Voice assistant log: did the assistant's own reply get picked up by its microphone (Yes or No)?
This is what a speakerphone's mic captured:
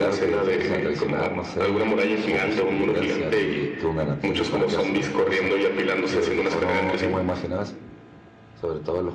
Yes